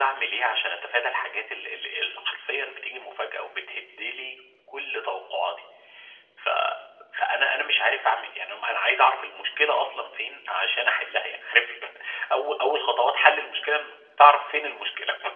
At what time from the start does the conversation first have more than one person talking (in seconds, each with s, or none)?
none